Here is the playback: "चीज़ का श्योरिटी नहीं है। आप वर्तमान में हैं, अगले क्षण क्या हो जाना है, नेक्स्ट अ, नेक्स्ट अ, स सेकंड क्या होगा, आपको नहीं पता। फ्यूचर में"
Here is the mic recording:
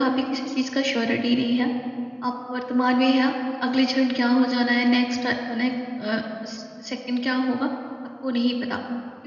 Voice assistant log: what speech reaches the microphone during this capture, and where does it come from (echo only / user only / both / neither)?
echo only